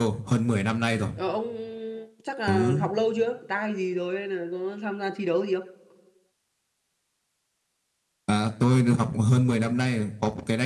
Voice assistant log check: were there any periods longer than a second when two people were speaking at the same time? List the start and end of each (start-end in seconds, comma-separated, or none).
none